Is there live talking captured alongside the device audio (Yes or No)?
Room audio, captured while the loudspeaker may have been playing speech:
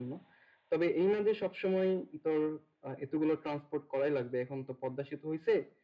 No